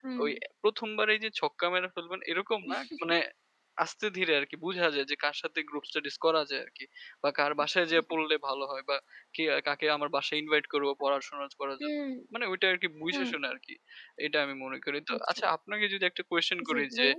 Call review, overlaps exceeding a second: none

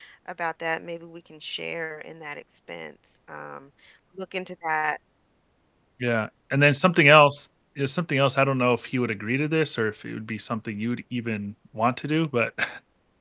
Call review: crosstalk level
none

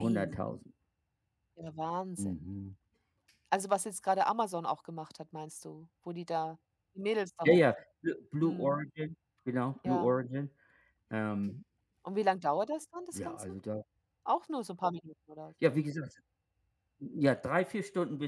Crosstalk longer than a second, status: none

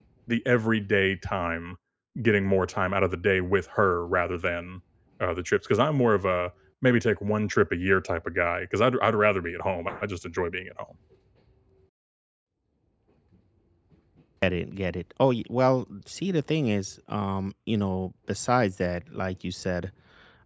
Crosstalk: none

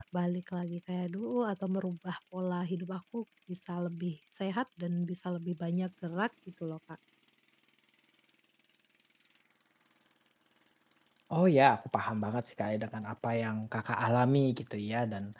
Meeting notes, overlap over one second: none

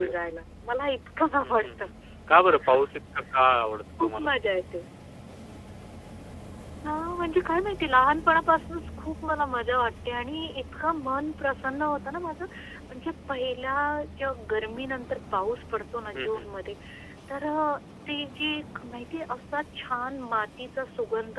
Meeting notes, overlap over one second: none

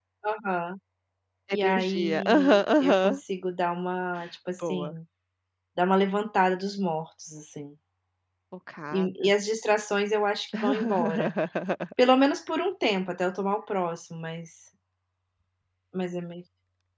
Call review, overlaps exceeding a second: present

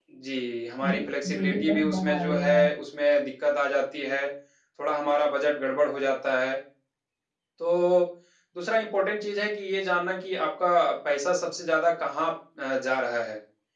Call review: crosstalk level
present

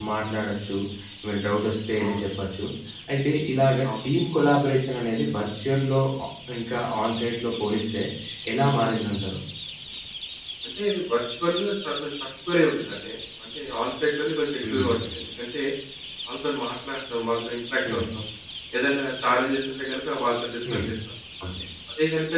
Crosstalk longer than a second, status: none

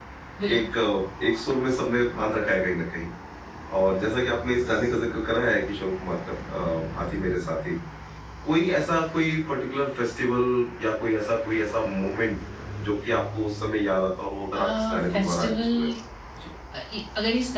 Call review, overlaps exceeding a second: present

